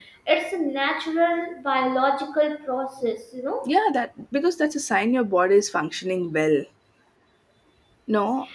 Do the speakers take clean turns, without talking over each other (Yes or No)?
Yes